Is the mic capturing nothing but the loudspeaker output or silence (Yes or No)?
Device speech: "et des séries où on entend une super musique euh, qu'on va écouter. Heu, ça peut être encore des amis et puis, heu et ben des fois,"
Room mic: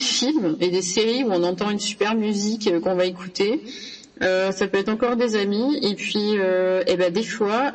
Yes